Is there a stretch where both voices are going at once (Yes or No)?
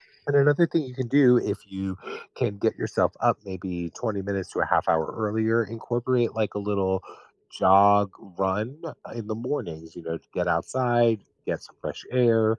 No